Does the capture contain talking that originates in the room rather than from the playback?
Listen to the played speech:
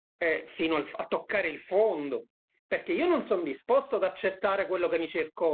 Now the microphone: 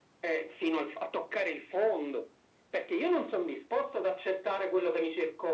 No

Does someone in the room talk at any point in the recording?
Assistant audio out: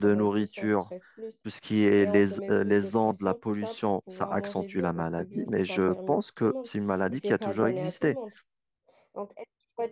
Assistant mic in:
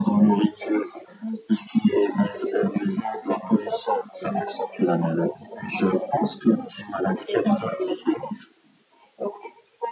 No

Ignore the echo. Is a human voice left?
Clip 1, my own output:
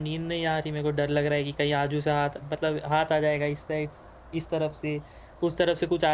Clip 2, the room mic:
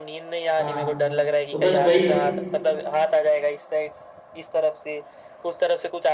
Yes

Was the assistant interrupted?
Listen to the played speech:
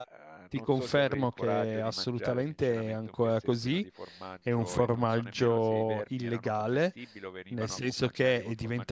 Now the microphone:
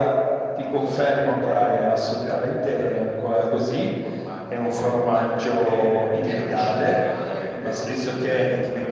Yes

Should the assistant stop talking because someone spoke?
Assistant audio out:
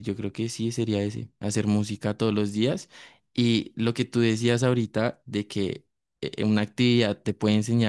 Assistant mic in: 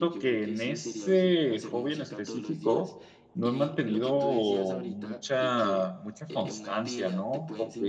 Yes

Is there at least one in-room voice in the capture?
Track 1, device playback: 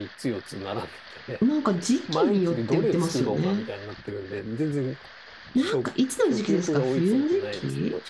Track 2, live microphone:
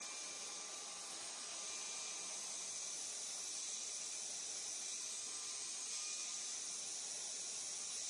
No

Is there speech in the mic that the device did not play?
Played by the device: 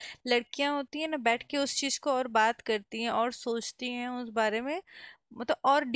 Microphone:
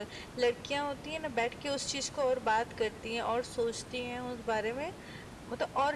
No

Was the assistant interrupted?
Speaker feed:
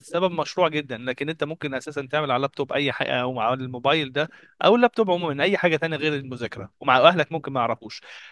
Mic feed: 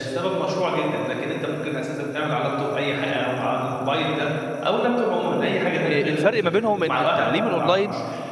Yes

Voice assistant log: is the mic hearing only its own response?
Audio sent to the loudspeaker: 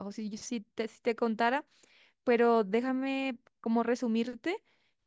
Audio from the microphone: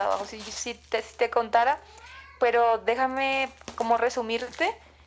Yes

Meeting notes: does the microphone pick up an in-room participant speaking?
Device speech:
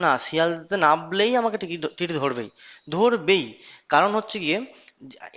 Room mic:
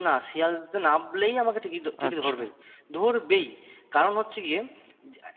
Yes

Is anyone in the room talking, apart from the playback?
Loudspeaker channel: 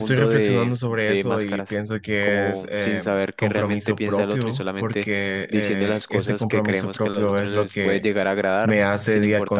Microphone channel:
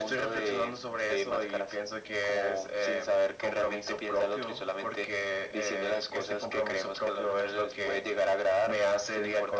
No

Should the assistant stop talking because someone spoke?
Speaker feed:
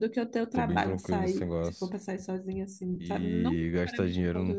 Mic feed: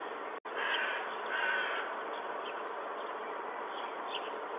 No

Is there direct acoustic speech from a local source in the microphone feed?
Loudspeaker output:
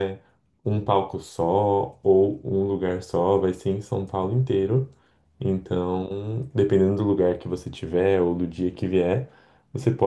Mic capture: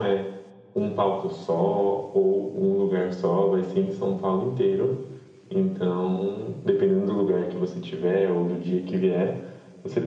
No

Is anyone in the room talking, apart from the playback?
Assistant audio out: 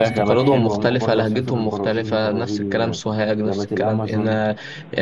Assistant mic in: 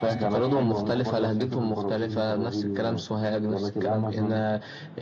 No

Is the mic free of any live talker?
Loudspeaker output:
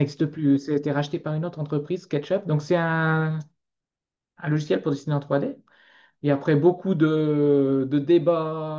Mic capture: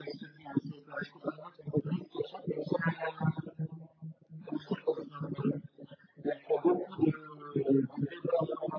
Yes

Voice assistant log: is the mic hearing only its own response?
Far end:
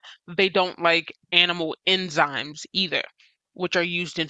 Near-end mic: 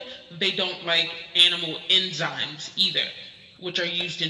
Yes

